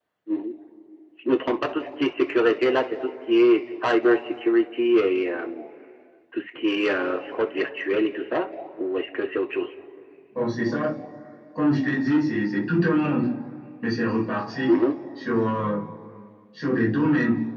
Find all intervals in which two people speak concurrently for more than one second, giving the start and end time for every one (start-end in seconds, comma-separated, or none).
none